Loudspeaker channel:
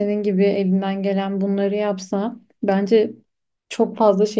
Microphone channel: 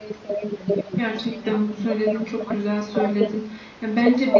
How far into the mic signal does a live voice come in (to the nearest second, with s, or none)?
1 s